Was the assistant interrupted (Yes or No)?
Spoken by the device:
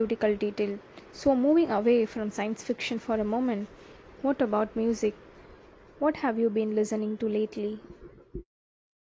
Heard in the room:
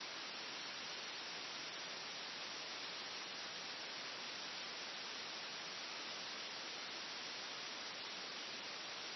No